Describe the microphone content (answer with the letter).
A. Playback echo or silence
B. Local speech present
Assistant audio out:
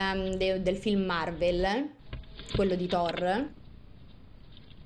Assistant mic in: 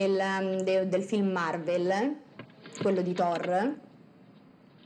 A